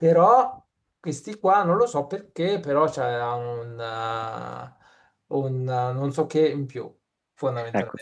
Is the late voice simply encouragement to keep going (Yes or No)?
No